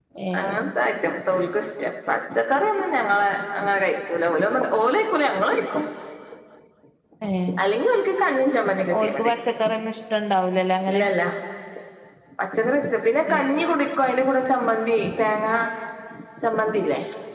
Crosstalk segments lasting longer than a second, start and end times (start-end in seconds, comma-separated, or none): none